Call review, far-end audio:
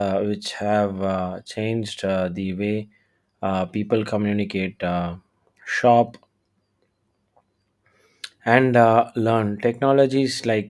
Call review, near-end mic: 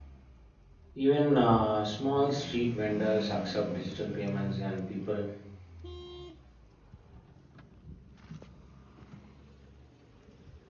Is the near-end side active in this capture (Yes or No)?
Yes